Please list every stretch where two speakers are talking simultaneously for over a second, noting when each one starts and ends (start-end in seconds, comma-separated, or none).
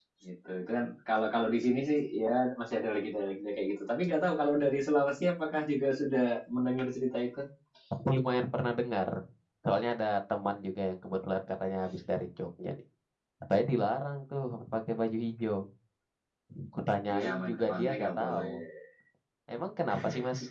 17.1-18.5